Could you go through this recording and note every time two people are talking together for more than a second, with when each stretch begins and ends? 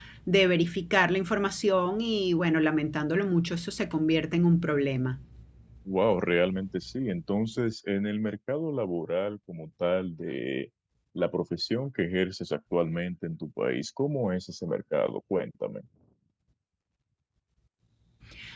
none

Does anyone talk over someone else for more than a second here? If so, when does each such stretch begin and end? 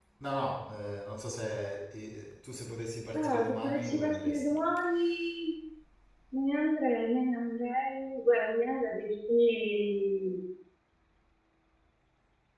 3.1-4.5

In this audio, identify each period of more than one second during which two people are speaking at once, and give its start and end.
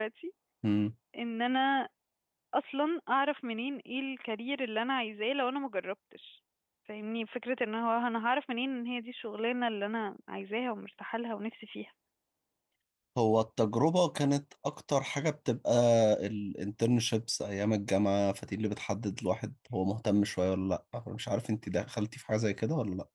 none

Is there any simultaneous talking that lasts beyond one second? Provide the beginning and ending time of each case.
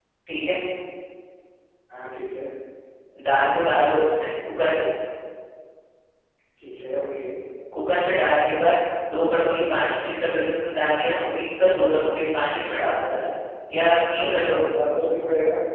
none

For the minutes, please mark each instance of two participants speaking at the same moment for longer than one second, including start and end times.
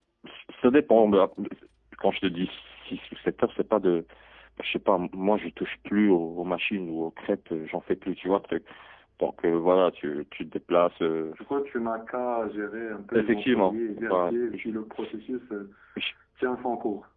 13.2-14.7

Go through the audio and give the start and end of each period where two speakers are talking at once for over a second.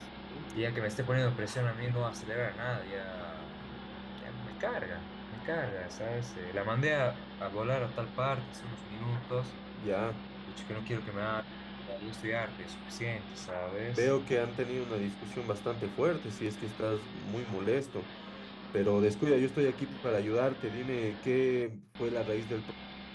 none

